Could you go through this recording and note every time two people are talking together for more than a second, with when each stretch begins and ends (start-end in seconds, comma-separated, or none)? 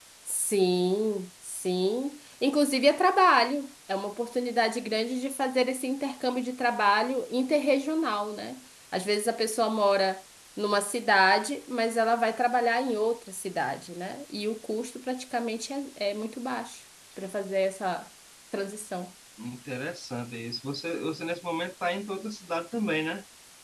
none